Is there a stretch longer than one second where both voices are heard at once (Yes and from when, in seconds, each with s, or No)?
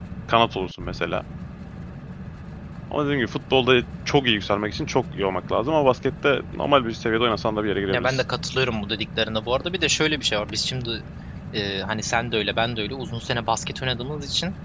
No